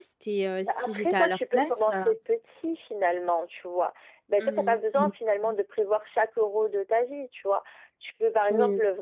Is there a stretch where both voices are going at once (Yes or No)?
Yes